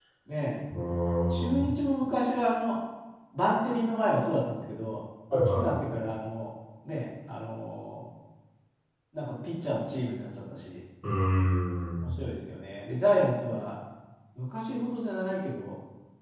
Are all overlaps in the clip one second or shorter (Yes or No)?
Yes